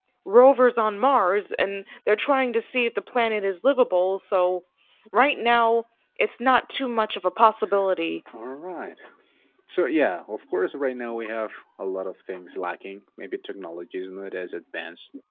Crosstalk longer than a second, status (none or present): none